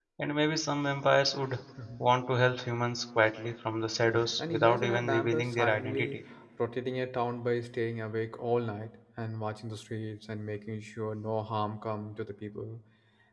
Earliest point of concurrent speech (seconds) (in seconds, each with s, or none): 4.0 s